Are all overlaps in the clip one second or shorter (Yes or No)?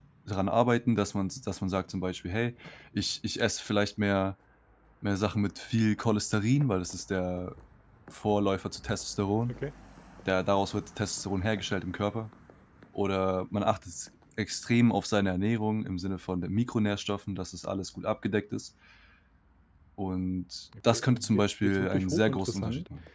No